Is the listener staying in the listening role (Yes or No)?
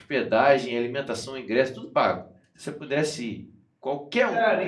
No